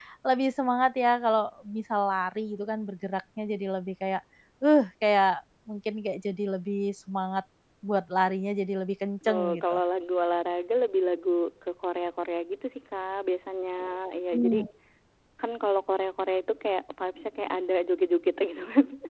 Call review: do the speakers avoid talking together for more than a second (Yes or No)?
Yes